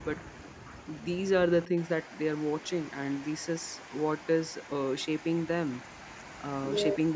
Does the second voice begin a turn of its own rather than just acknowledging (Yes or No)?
No